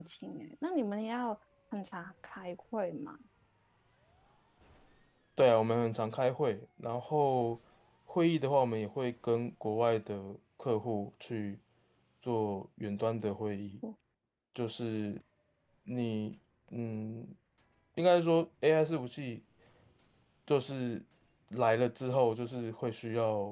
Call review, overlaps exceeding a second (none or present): none